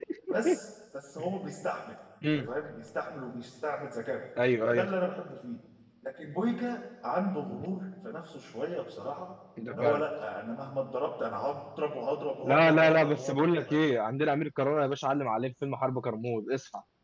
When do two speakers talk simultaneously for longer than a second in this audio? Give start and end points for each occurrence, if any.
12.4-13.8

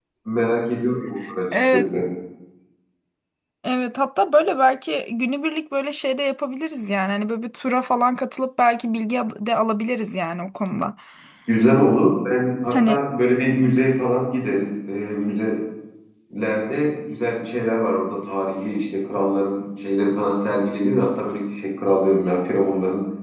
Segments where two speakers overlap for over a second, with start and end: none

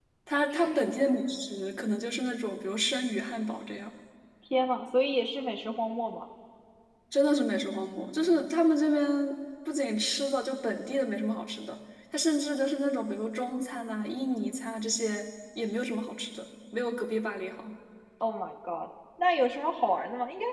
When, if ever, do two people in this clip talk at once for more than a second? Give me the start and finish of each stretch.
none

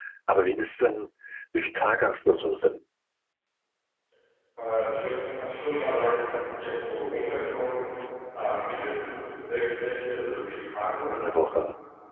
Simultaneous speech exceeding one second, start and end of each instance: none

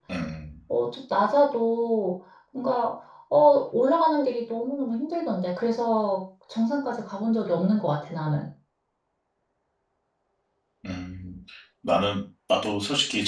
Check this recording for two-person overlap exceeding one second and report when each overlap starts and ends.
none

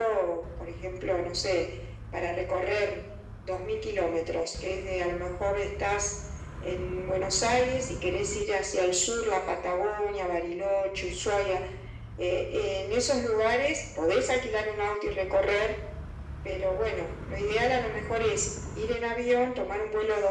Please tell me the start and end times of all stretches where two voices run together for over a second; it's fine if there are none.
none

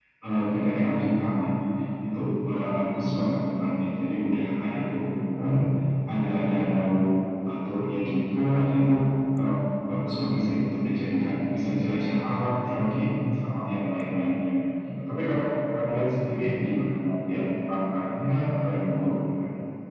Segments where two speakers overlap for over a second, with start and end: none

